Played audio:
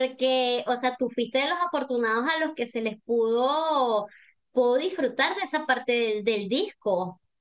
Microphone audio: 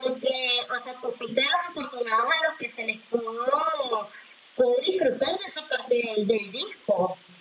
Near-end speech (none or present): none